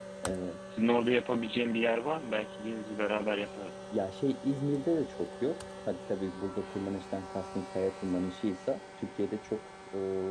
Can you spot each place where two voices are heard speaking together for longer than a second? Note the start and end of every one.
none

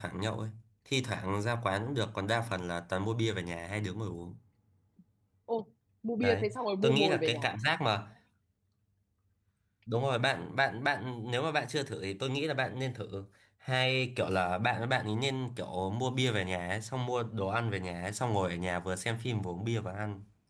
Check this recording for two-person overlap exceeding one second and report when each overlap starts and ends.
6.2-7.5

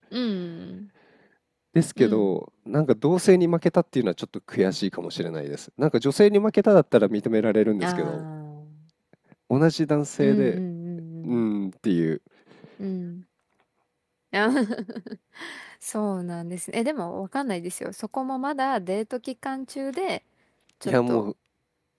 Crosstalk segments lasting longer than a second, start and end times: none

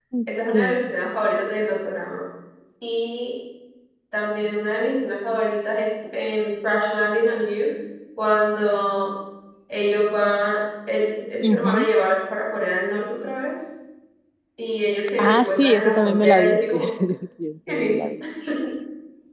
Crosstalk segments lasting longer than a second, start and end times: 15.2-16.8

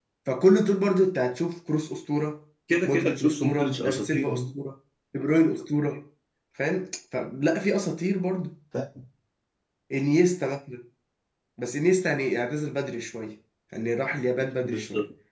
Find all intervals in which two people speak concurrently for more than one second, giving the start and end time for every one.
2.9-4.3

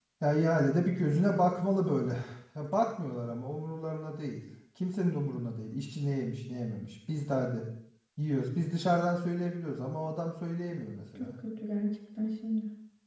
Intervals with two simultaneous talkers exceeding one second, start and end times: none

